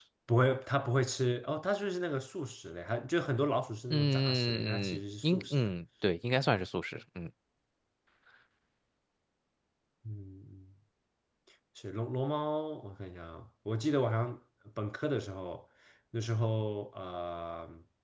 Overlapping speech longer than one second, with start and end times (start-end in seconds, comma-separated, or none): 3.9-5.7